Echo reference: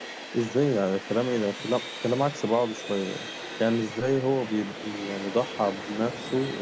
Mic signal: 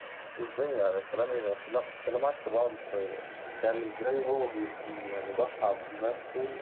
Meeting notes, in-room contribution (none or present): none